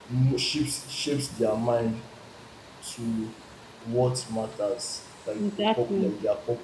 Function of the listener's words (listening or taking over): listening